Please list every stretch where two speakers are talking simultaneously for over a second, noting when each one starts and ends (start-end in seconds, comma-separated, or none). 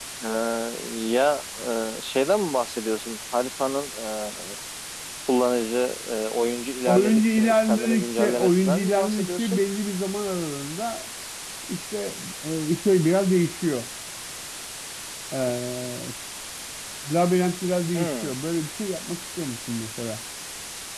6.9-9.6